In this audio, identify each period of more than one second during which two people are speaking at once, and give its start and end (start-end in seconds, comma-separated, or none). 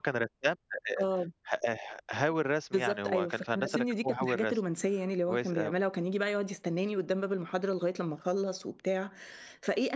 2.7-4.5